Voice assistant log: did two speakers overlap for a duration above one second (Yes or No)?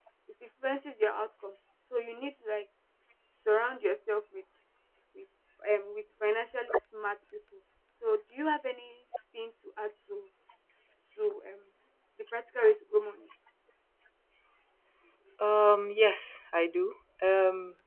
No